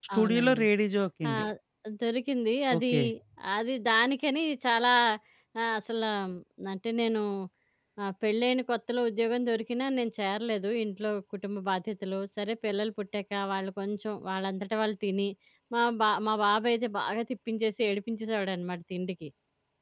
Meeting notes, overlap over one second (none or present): none